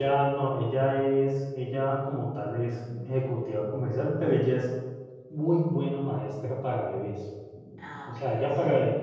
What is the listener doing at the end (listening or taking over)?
listening